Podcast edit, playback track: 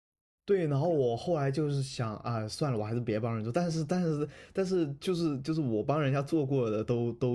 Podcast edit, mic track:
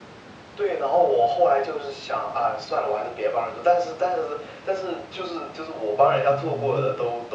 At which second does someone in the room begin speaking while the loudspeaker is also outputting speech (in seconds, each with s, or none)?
5.9 s